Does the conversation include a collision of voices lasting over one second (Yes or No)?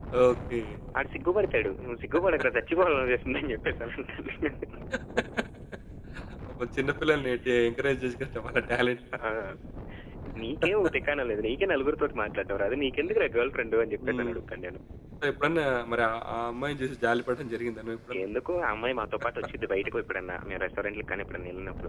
No